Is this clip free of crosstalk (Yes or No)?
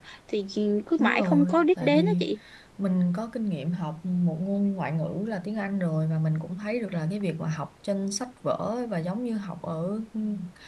No